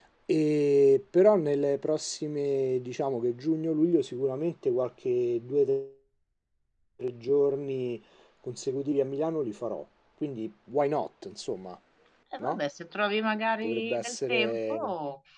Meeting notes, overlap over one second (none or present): present